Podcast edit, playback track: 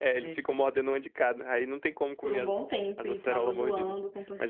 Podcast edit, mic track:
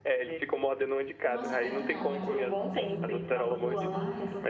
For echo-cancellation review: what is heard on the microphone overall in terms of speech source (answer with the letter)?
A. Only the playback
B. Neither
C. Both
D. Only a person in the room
C